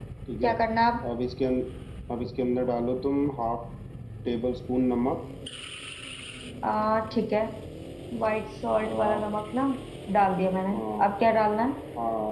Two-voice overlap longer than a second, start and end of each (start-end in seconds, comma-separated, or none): none